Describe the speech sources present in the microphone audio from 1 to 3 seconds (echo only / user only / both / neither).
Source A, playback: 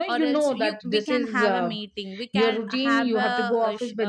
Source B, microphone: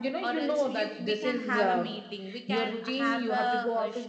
echo only